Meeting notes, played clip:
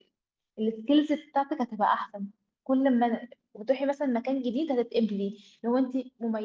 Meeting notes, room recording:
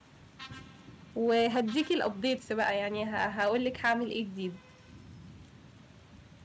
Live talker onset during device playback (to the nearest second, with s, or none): 1 s